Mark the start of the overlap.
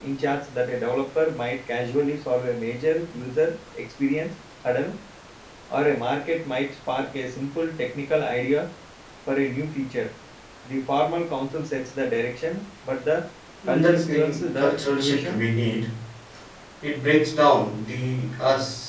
13.7 s

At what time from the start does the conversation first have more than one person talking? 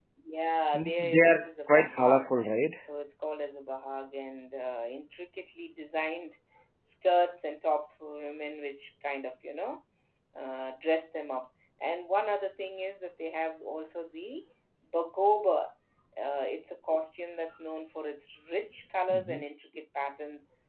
0.7 s

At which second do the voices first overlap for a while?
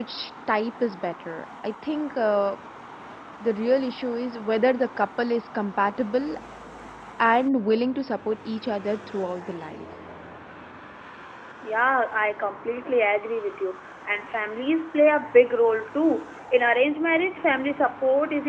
none

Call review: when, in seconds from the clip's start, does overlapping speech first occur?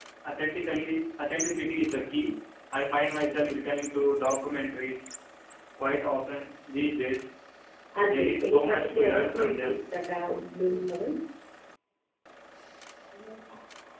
8.0 s

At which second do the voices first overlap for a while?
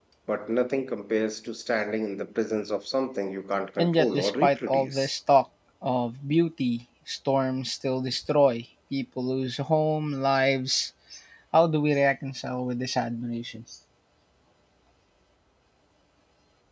3.8 s

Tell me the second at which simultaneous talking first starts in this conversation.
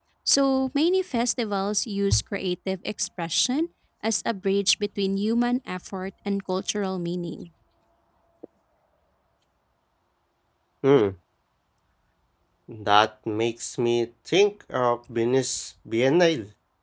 none

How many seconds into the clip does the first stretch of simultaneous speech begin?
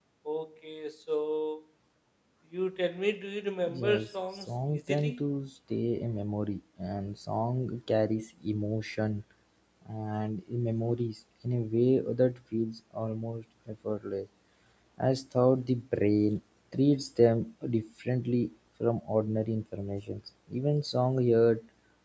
3.6 s

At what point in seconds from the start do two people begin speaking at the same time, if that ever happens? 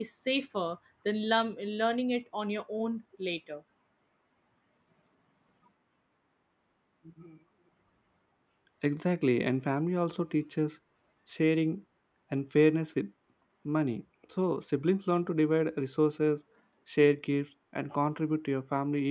none

